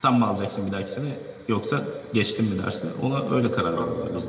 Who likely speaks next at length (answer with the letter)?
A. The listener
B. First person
A